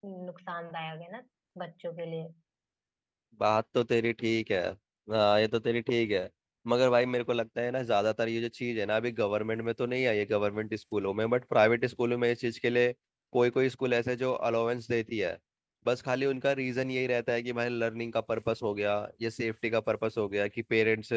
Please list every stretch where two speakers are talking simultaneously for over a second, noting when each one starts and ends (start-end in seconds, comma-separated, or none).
none